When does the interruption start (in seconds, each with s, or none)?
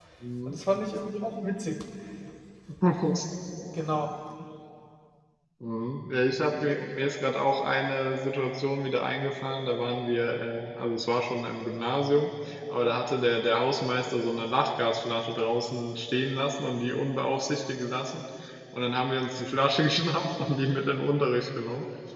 none